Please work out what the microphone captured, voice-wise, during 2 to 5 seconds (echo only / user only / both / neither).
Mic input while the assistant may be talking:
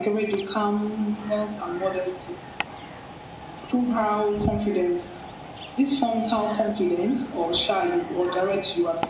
echo only